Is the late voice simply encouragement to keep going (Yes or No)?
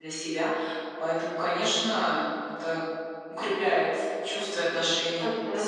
No